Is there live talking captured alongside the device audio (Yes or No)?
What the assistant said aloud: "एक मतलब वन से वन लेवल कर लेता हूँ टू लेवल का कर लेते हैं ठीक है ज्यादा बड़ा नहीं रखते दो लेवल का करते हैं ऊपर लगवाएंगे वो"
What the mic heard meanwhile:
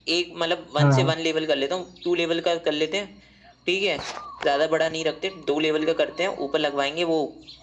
Yes